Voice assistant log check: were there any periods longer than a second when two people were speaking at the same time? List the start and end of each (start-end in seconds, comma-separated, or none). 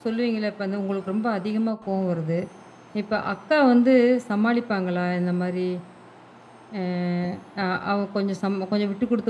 none